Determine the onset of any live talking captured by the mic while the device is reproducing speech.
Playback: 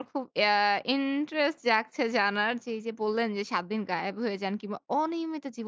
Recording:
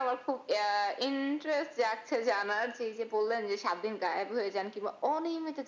none

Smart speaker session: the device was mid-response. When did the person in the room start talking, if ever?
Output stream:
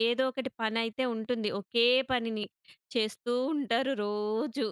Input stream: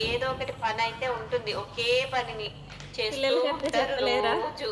3.1 s

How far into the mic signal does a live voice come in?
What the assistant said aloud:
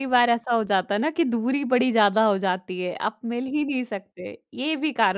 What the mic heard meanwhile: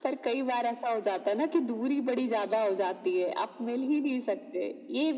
none

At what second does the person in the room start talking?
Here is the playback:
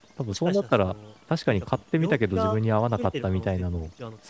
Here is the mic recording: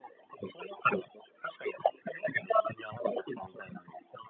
none

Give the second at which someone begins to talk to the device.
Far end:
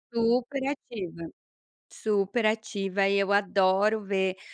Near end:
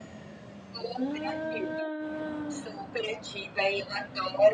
1.0 s

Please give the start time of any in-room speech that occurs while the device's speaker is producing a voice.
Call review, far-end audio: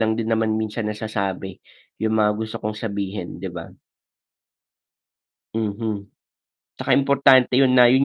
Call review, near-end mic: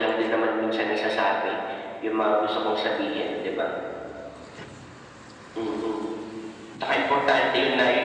none

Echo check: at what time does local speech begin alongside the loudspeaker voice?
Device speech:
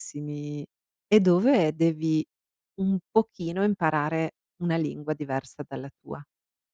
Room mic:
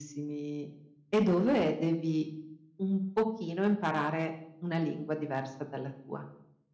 none

